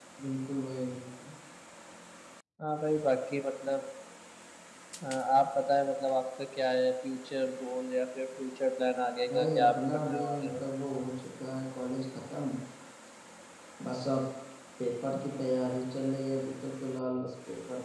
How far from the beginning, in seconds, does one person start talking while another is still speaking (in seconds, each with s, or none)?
9.3 s